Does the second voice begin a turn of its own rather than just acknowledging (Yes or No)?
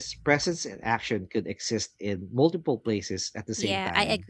Yes